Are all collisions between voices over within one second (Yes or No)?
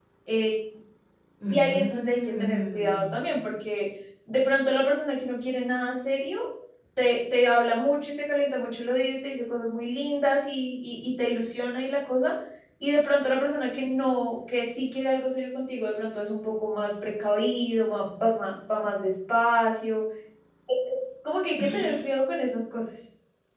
No